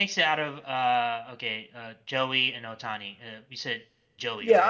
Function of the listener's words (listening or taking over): taking over